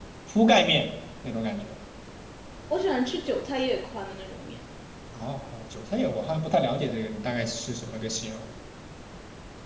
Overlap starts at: none

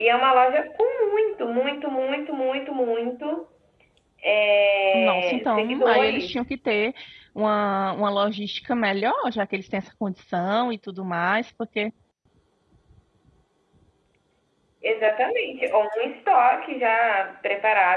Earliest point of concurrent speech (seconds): 5 s

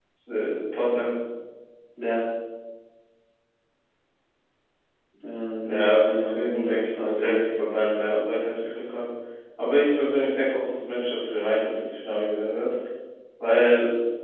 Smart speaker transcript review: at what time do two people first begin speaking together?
6 s

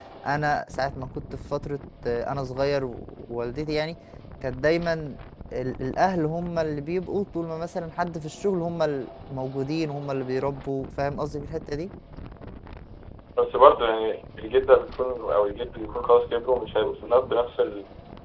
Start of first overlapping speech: none

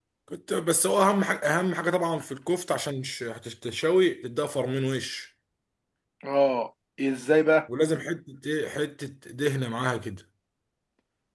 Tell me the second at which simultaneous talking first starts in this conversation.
none

